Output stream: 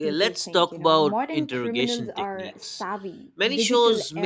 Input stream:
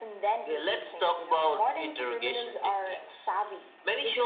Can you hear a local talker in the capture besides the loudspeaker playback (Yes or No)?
No